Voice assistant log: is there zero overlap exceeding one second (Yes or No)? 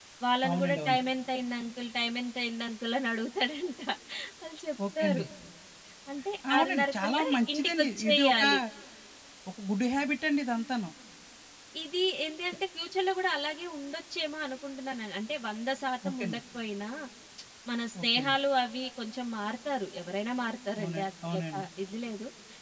No